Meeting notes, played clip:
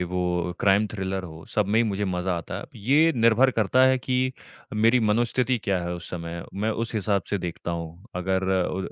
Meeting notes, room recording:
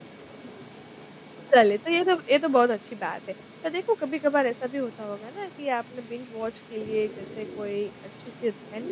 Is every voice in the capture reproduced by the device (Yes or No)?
No